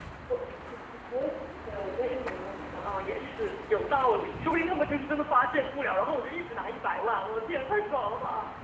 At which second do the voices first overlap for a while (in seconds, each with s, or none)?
none